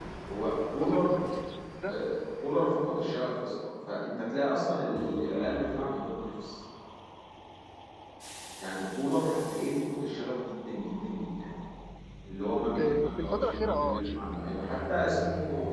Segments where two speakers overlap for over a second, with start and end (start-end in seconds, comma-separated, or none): 12.8-14.0